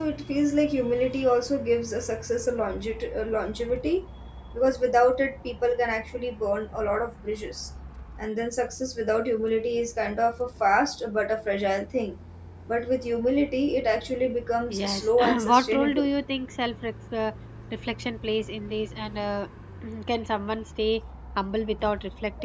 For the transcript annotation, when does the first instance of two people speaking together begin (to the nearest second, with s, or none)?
15 s